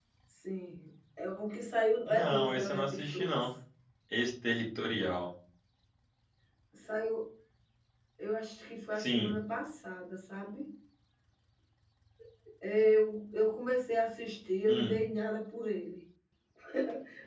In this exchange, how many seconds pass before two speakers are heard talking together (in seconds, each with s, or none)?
2.1 s